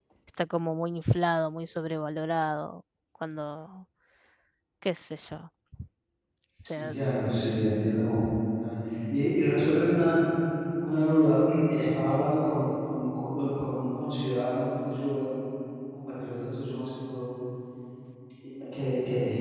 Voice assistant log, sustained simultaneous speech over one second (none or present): none